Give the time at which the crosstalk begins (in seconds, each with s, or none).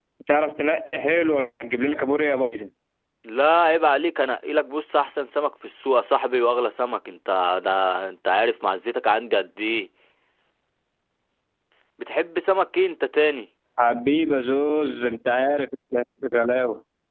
none